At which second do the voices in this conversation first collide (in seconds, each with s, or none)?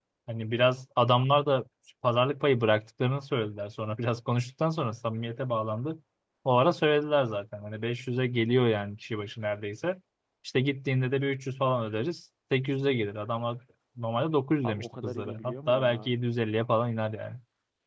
14.6 s